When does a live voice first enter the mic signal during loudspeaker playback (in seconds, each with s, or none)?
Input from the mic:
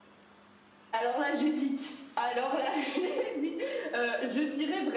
none